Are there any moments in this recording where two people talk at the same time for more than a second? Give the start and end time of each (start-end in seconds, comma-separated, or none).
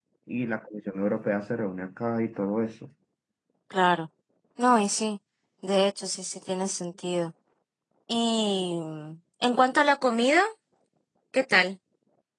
none